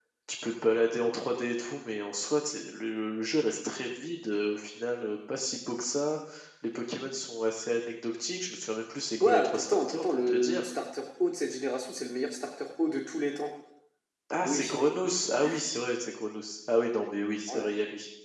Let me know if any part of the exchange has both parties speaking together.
Yes, from 9.2 s

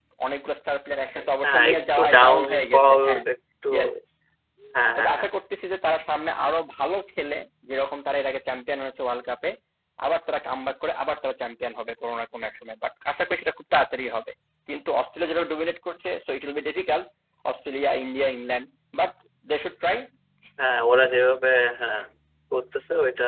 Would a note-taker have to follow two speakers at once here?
Yes, from 1.4 s

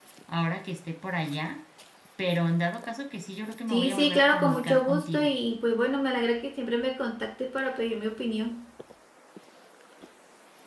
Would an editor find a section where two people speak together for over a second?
Yes, from 3.7 s

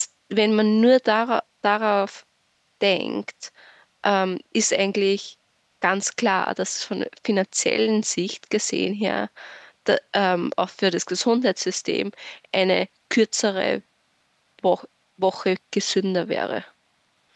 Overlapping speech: No

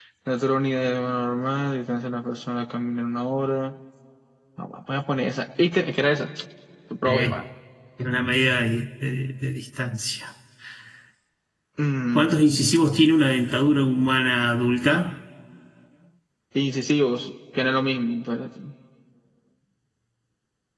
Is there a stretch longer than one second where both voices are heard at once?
No

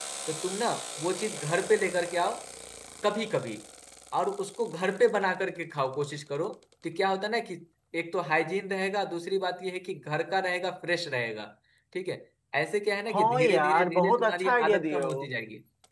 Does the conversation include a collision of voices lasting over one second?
Yes, from 13.1 s

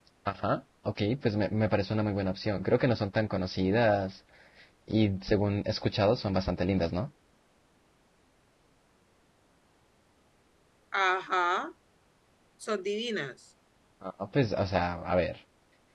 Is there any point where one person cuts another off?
No

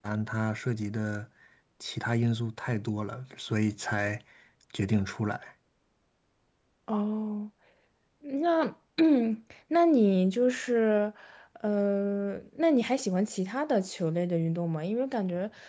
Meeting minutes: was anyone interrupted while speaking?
No

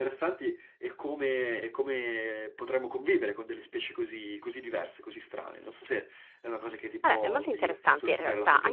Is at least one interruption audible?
Yes, from 7.0 s

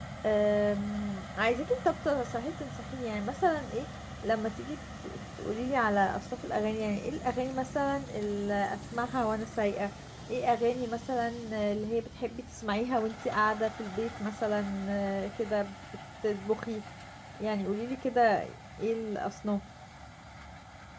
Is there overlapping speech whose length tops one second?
No

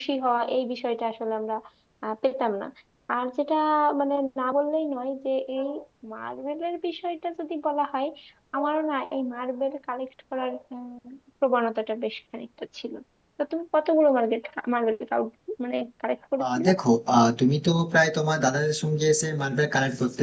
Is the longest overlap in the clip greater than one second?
No

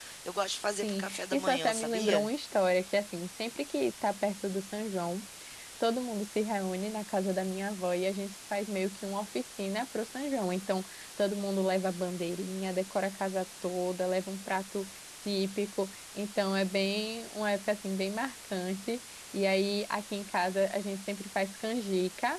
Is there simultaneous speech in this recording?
Yes, from 0.8 s

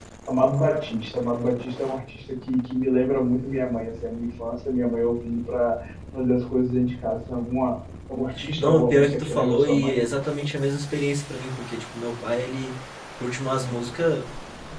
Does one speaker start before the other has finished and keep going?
Yes, from 8.6 s

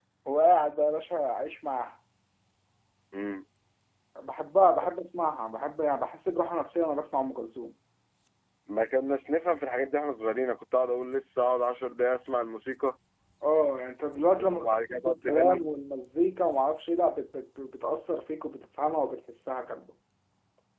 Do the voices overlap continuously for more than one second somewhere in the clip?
Yes, from 14.4 s

